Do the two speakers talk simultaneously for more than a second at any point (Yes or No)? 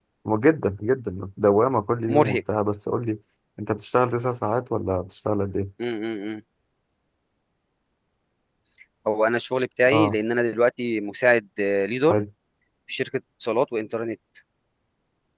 No